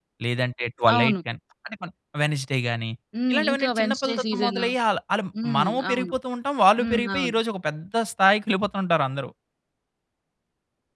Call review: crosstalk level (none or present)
present